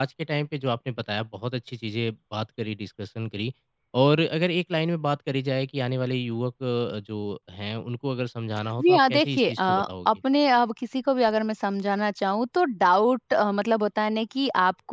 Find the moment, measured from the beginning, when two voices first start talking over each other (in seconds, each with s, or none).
8.8 s